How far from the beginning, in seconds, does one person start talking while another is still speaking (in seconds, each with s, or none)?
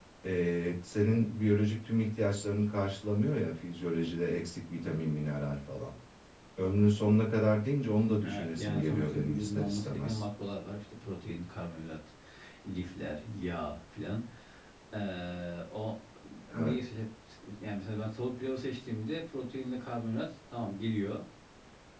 8.2 s